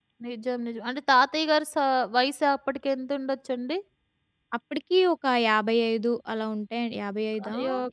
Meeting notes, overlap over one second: none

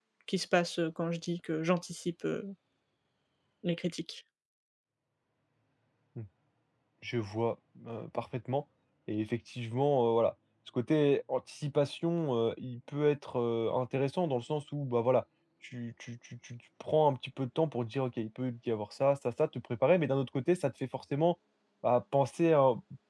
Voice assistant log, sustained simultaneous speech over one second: none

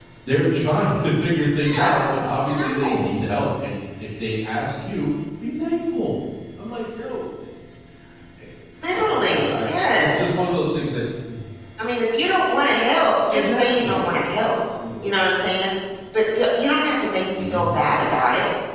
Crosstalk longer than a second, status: present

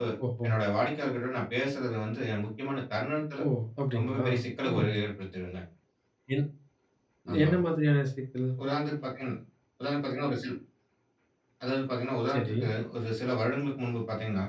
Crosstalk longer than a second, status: none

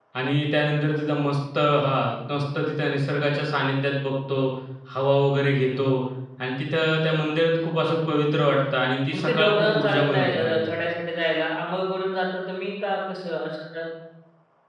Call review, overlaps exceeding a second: present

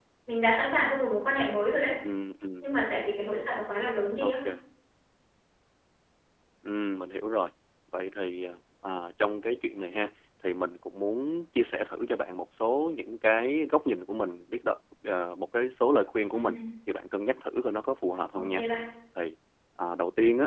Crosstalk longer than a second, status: none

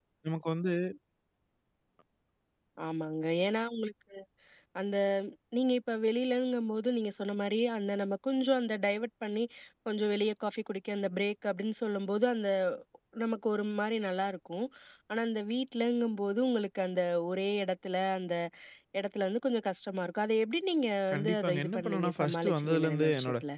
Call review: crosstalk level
present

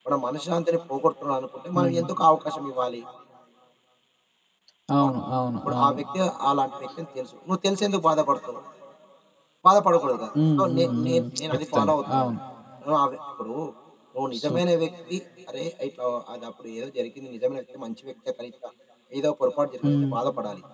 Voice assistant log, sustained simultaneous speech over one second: present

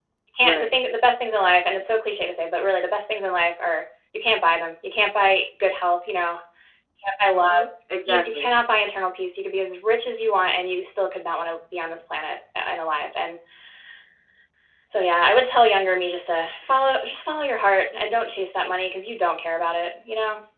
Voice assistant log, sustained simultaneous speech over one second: none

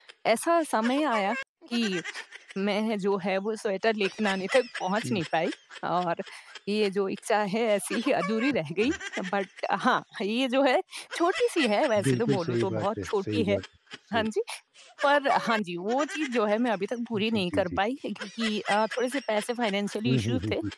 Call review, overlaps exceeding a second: present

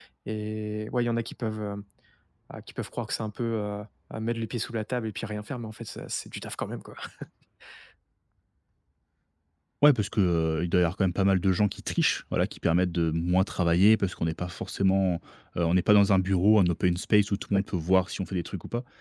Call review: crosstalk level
none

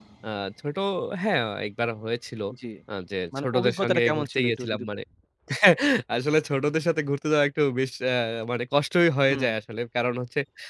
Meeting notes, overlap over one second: present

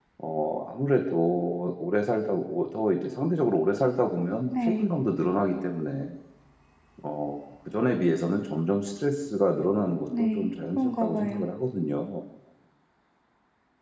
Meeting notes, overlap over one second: present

